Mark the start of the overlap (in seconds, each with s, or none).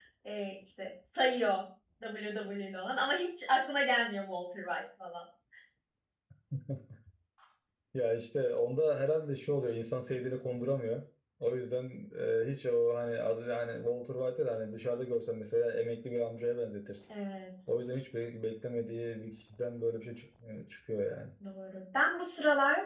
none